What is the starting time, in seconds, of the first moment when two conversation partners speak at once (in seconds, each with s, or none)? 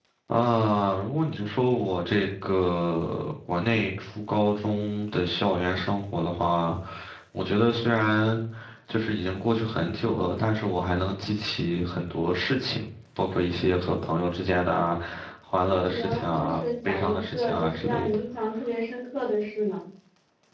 15.7 s